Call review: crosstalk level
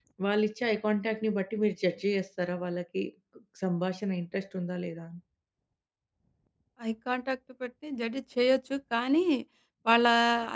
none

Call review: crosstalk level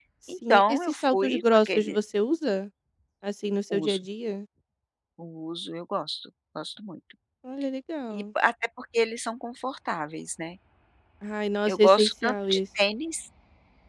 present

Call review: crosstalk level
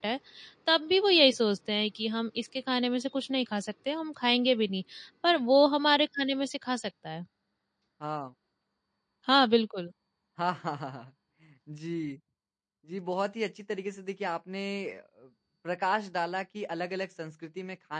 none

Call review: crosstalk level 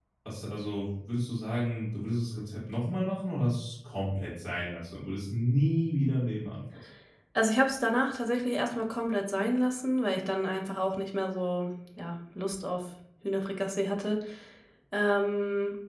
none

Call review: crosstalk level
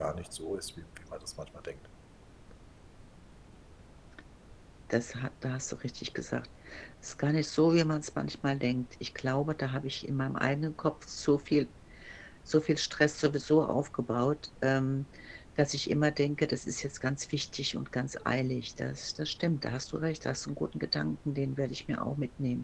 none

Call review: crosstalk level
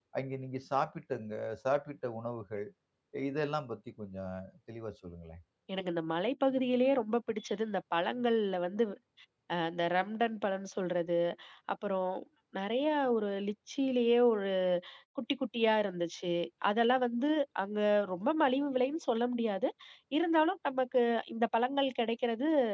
none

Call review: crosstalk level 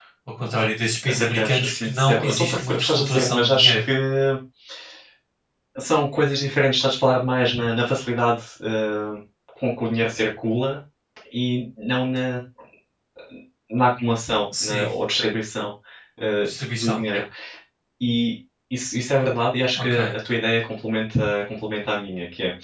present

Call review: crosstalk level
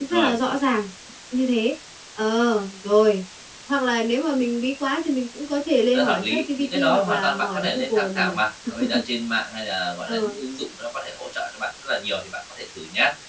present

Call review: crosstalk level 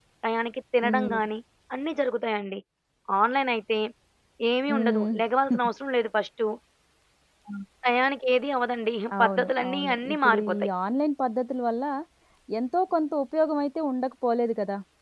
present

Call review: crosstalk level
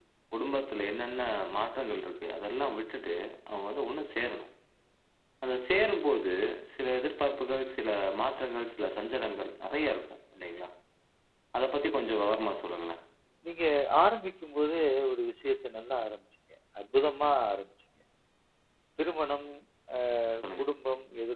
none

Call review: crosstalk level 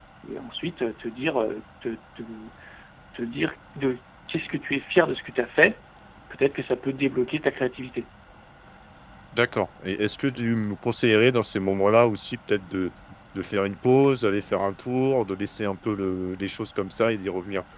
none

